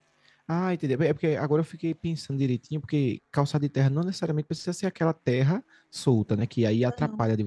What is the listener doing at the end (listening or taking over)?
listening